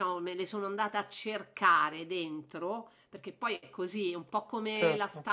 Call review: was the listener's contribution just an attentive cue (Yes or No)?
Yes